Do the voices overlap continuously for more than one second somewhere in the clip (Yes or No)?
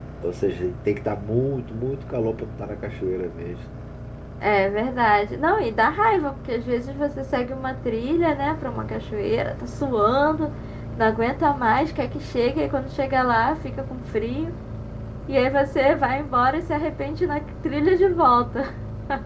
No